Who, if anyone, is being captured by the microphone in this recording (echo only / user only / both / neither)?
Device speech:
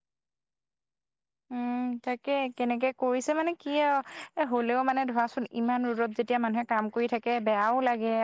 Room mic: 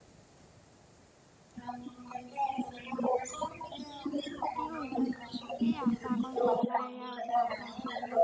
both